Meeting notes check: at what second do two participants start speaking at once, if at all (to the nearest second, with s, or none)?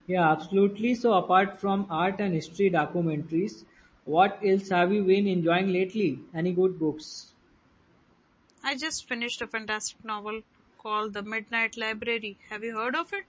none